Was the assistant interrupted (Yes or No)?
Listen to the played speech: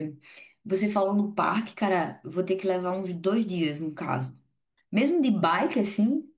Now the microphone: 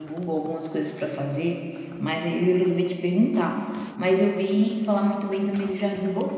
Yes